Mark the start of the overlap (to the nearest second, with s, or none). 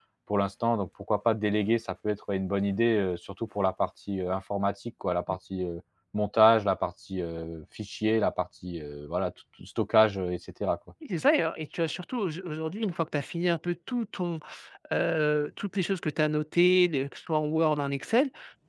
none